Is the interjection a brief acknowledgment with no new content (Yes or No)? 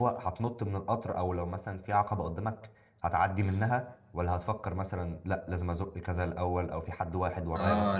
No